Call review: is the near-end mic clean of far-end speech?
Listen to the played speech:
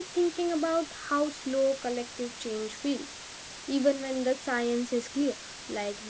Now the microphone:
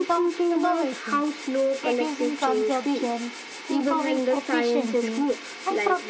No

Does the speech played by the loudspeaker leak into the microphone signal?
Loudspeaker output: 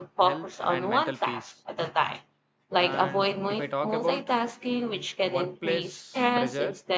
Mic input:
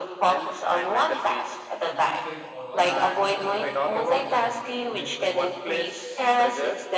Yes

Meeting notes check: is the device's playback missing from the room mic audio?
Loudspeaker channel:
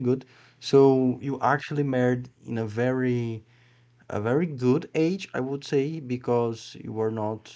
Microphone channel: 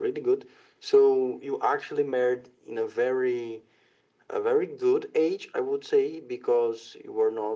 No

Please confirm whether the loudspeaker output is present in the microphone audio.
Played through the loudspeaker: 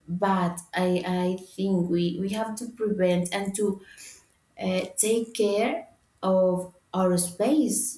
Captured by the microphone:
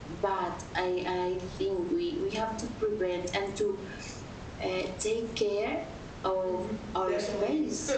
Yes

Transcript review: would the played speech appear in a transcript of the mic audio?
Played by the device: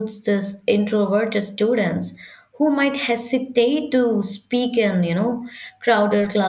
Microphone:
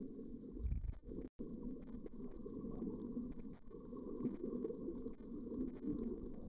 No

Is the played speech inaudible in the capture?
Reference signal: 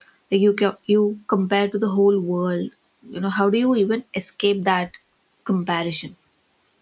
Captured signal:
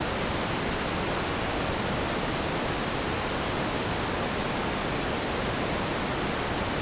Yes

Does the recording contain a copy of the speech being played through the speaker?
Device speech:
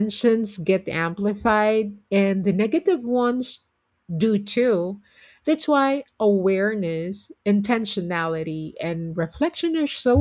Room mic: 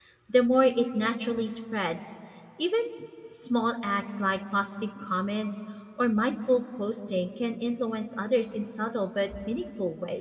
No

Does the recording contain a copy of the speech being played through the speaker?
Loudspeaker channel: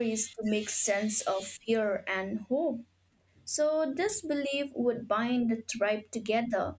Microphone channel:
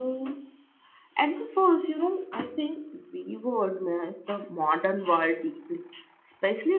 No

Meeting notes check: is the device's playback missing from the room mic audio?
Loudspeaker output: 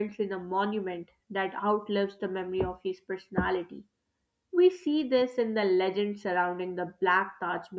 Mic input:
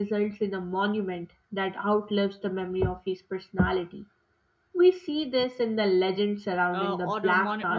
No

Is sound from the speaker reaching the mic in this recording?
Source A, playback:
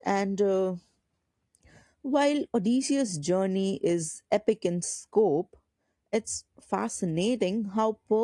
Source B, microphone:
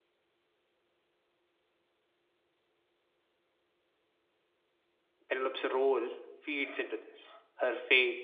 No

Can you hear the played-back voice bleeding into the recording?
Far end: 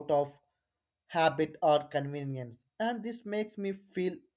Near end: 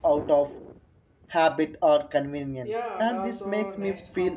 Yes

